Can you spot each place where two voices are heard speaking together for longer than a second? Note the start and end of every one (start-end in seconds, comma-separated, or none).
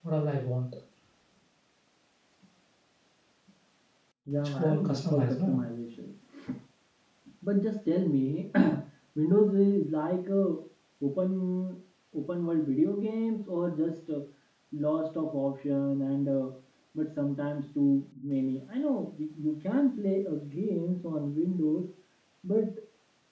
4.4-5.6